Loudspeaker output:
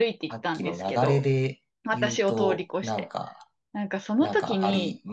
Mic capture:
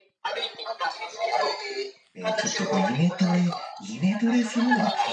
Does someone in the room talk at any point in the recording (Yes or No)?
Yes